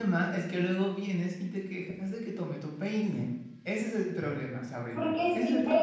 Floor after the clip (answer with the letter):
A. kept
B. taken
B